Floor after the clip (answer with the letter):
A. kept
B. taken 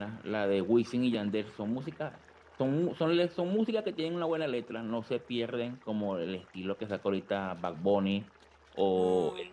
A